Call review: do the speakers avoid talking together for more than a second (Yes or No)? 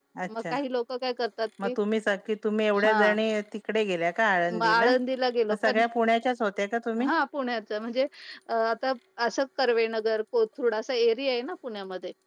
Yes